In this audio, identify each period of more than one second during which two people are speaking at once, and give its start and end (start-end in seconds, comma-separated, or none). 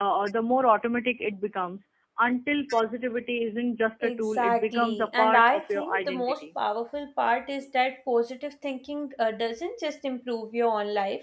4.0-6.4